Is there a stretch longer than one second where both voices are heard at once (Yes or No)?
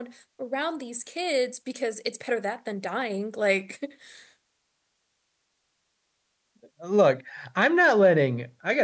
No